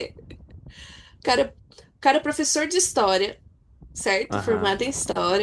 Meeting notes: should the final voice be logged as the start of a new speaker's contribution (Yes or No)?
No